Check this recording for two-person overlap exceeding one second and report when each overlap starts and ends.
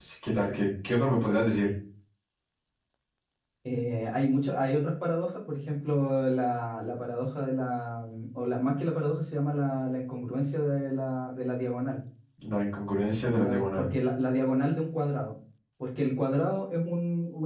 none

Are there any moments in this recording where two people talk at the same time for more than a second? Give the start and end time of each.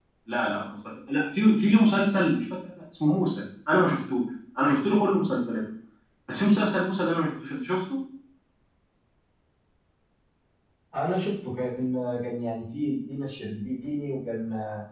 none

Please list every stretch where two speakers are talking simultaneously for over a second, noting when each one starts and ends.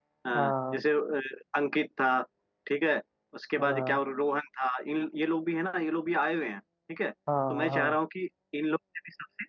none

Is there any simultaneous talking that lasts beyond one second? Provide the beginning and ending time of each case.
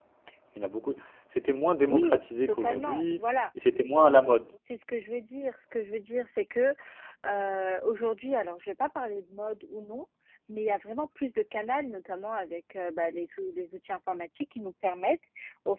1.9-3.2

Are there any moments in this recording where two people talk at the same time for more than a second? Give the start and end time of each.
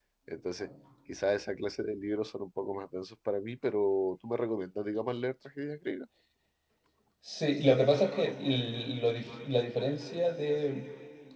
none

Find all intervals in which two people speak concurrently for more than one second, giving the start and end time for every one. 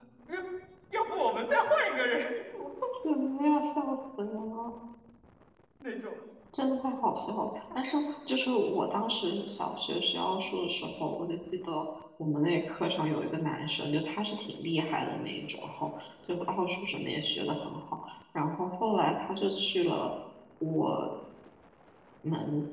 none

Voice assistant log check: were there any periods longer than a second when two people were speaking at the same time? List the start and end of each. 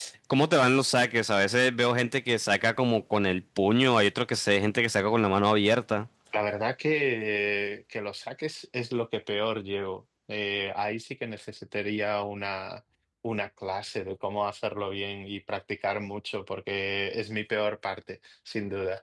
none

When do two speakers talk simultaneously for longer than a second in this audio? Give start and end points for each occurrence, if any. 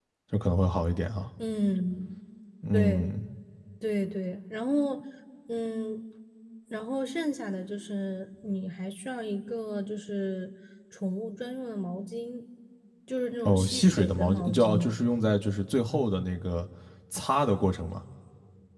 13.4-14.9

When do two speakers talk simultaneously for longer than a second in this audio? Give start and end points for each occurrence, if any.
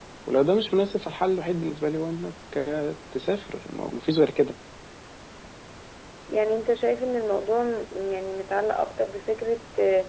none

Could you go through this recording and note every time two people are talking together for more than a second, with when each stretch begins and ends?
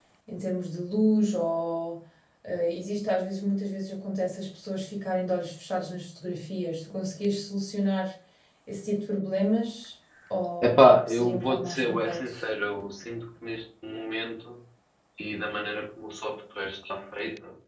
10.6-12.4

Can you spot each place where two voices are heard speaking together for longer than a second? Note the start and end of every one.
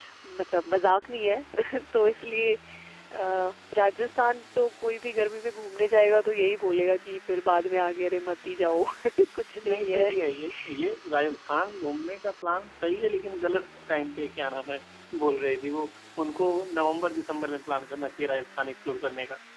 none

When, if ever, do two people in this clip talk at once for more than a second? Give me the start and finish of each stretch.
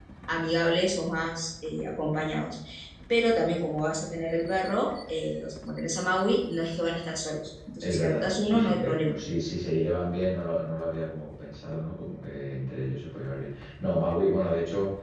7.8-9.2

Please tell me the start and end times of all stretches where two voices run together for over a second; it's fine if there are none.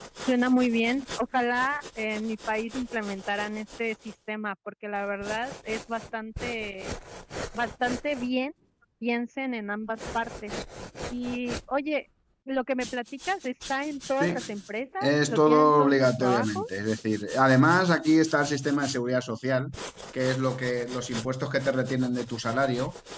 15.0-16.7

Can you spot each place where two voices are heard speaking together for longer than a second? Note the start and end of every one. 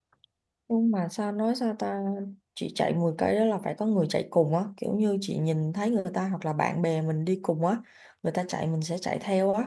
none

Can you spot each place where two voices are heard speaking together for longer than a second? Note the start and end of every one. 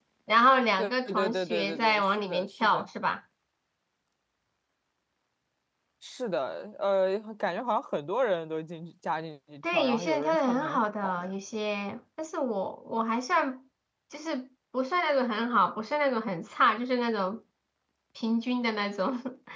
0.8-2.9, 9.7-11.3

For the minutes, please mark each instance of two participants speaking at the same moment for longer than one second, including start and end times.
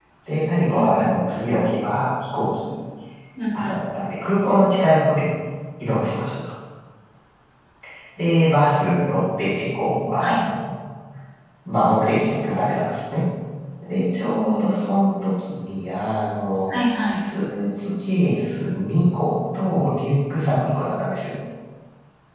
none

